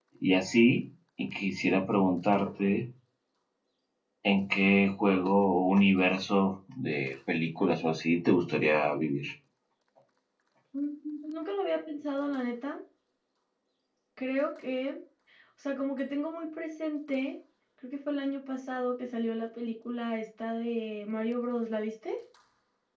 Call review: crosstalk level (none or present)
none